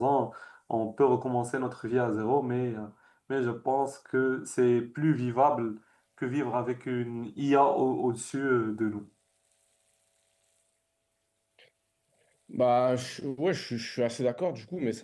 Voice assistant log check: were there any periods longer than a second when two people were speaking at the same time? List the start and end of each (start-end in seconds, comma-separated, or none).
none